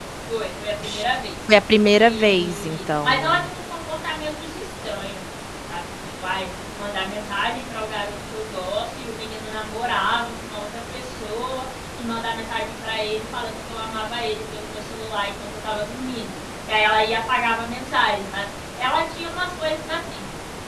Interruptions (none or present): present